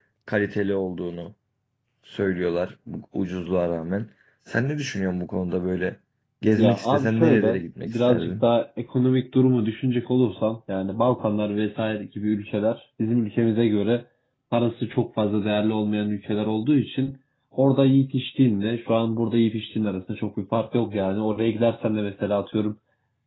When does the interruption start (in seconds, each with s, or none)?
6.6 s